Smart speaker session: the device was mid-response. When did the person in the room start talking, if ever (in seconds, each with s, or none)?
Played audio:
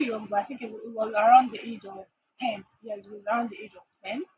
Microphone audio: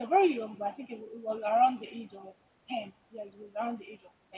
none